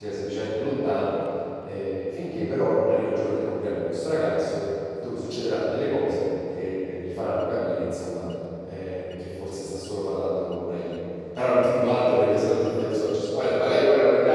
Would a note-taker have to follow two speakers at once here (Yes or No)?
No